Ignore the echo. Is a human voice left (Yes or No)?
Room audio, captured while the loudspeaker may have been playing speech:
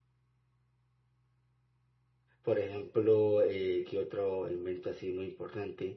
Yes